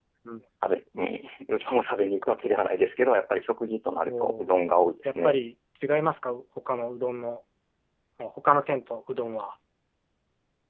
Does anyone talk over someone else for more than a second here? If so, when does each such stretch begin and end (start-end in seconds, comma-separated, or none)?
none